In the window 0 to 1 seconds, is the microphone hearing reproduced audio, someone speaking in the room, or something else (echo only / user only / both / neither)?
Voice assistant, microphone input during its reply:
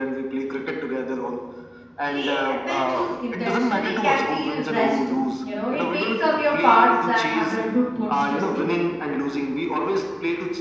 echo only